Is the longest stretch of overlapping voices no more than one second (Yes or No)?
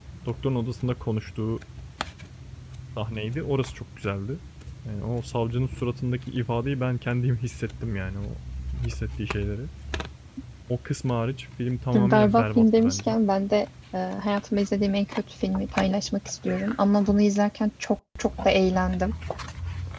No